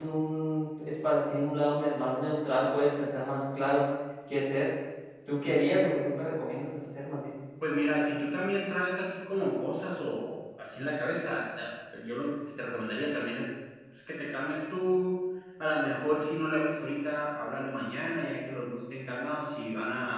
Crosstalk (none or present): none